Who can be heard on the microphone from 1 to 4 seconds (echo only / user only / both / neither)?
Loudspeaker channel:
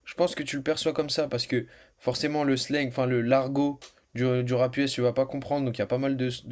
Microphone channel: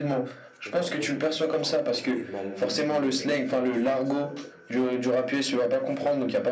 both